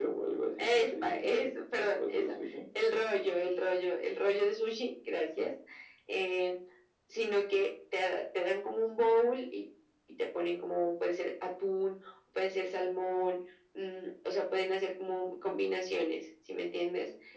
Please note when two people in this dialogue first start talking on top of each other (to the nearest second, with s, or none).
1 s